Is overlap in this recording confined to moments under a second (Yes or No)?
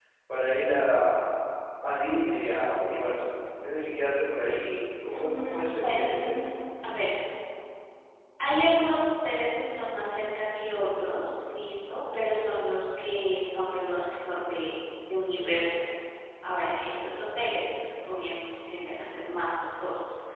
No